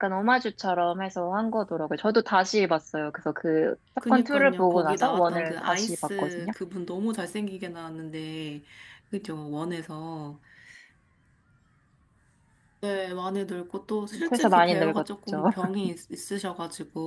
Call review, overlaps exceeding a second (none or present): present